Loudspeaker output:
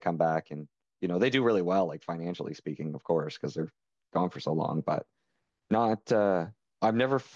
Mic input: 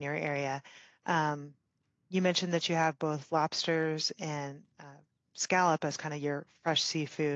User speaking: Yes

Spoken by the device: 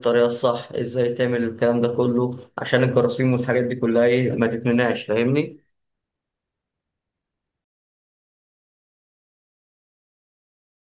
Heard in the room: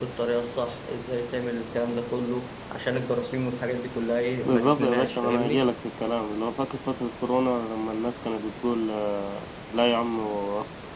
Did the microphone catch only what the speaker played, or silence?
No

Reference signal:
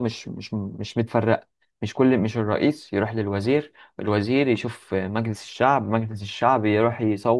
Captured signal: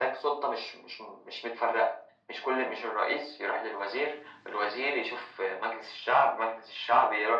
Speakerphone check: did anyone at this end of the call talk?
No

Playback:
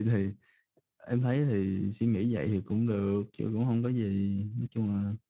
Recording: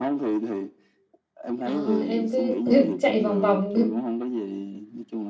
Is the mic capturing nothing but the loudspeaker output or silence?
No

